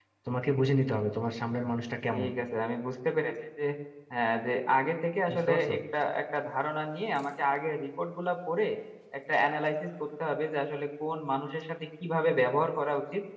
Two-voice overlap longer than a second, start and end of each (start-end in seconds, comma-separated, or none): none